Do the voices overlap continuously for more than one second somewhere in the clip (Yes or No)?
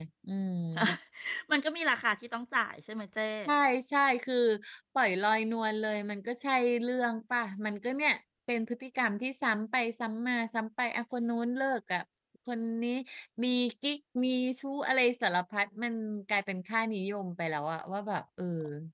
No